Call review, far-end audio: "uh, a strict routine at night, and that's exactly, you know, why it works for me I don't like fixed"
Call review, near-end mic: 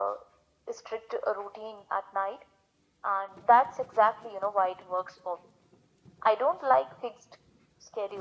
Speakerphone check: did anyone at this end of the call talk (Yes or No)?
No